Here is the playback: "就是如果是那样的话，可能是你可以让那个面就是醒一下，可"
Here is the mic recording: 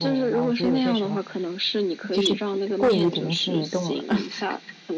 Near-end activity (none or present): present